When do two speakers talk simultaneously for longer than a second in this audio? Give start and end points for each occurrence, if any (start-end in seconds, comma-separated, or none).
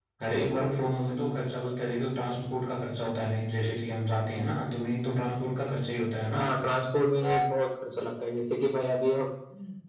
none